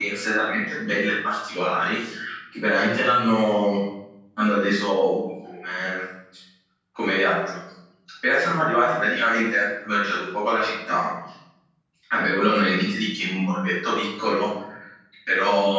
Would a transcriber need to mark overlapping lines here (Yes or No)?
No